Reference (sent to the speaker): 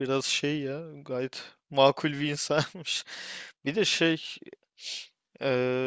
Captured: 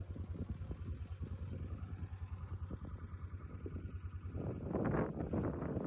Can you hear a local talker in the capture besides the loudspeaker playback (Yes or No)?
No